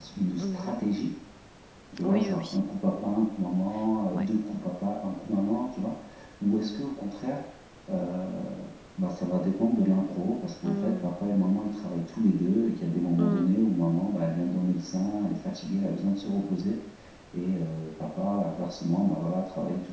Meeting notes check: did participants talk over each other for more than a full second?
No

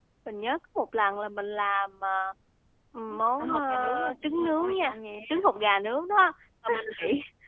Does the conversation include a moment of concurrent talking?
Yes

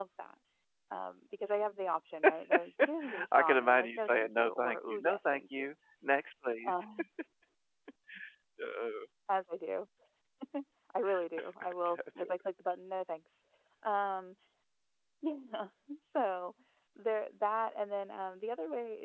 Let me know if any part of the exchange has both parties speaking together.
Yes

